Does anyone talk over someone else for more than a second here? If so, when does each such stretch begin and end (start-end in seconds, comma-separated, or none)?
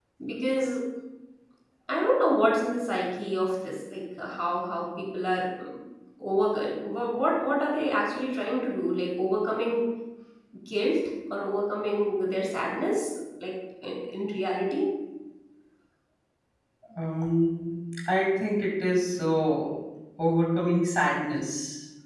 none